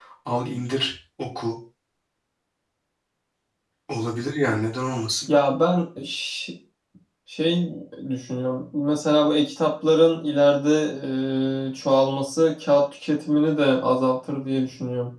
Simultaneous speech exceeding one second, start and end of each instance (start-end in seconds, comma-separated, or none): none